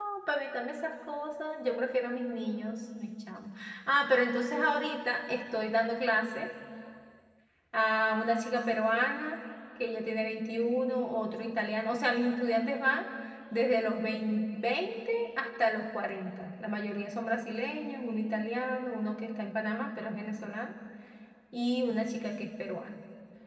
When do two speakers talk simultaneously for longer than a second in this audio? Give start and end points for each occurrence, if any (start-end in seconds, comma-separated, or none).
none